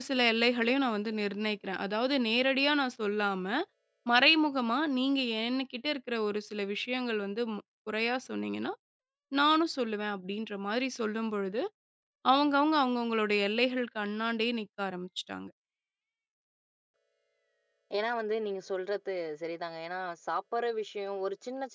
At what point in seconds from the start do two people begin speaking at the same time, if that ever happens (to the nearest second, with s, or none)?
none